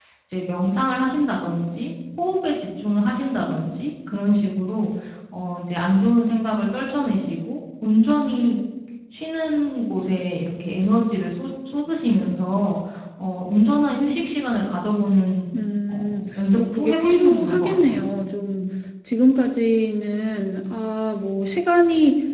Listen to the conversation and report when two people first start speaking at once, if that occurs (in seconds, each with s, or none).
15.9 s